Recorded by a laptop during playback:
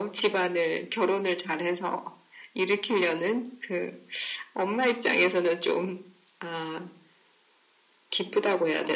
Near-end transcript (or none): none